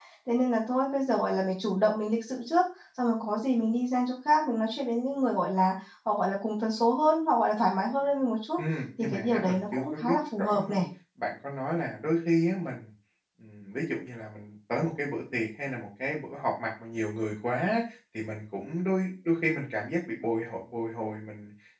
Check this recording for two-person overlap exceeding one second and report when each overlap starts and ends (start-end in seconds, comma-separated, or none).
9.0-10.8